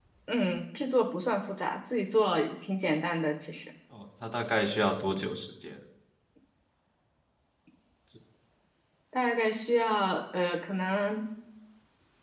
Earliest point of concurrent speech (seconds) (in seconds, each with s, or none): none